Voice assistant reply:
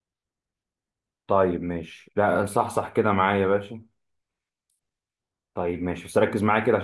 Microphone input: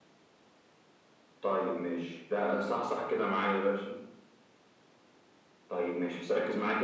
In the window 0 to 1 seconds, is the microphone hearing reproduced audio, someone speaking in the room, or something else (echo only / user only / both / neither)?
neither